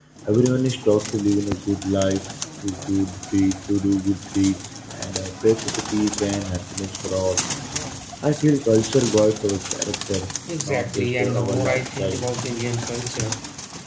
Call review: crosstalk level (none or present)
present